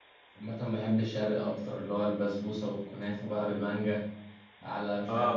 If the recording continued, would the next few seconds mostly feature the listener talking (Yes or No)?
Yes